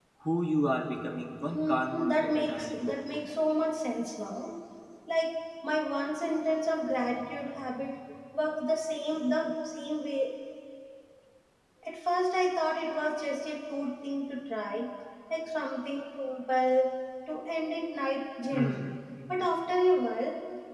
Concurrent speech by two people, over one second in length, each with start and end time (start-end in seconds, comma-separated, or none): 1.4-2.8